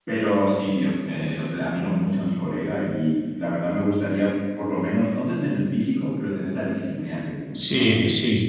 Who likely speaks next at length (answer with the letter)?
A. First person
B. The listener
B